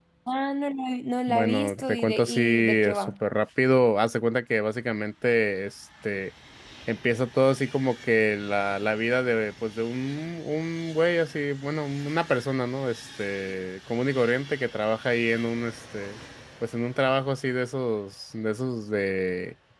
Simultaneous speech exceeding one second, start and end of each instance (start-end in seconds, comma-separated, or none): 1.3-3.1